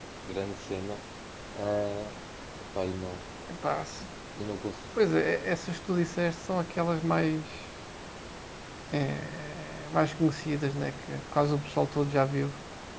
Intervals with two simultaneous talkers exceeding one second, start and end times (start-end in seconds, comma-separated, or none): none